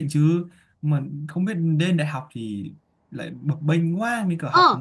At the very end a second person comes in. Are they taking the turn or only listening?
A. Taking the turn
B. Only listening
A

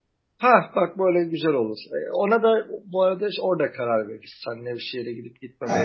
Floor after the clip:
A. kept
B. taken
A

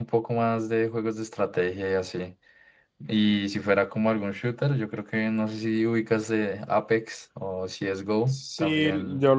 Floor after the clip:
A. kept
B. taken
B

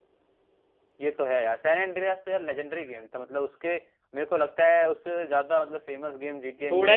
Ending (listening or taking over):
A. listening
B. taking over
B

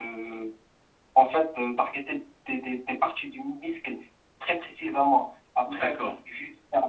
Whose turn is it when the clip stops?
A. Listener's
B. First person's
B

